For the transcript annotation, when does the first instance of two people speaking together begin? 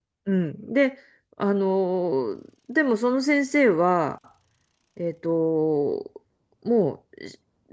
none

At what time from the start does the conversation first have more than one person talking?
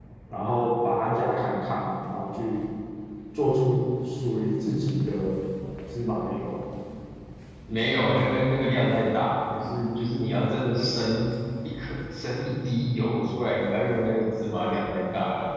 none

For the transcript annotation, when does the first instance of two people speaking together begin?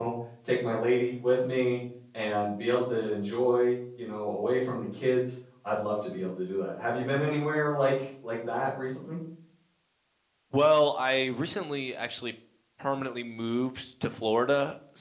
none

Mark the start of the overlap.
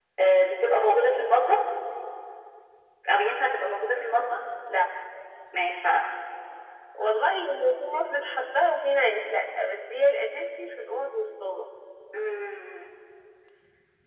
none

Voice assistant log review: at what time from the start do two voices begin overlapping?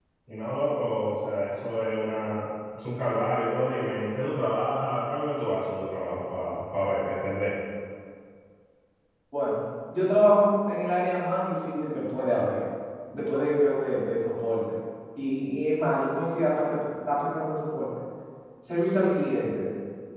none

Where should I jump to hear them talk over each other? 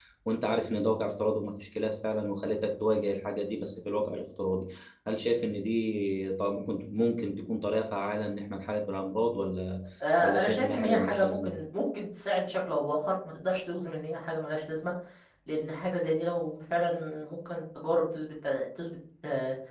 10 s

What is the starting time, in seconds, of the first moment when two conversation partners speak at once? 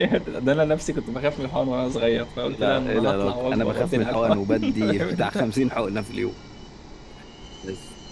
2 s

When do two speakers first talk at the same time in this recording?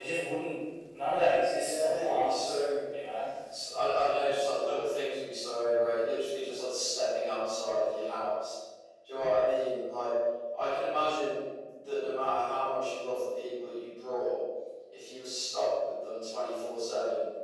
1 s

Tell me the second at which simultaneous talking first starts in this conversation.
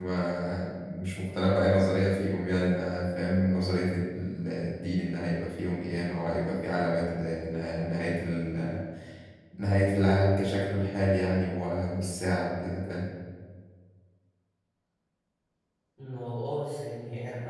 none

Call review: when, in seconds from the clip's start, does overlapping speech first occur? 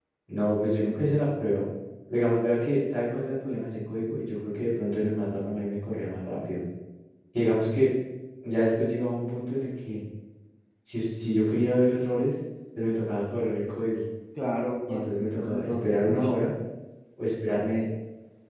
15 s

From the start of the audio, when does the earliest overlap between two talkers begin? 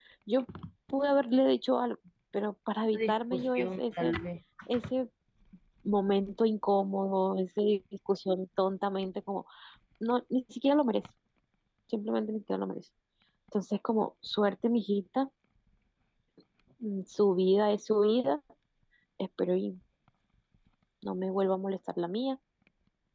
3 s

